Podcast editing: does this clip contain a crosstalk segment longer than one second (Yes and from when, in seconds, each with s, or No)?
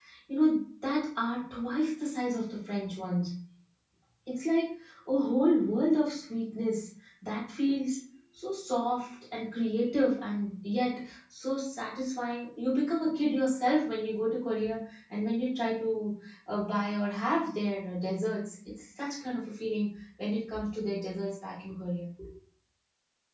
No